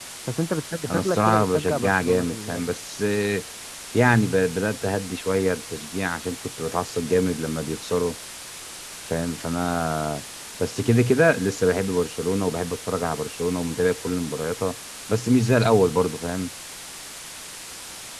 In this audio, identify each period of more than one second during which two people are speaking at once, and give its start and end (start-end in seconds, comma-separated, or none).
0.8-2.6